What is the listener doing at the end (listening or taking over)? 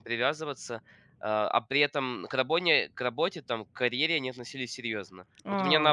listening